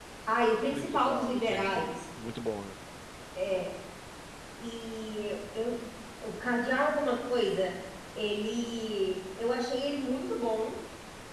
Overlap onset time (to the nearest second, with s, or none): 1 s